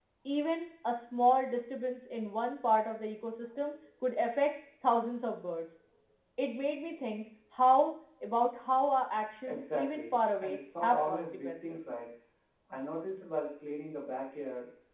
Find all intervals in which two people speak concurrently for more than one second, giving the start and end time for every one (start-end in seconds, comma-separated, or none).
9.5-11.8